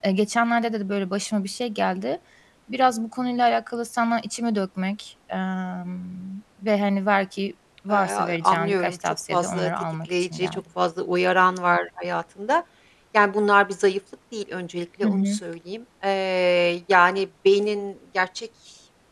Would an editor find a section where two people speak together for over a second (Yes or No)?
Yes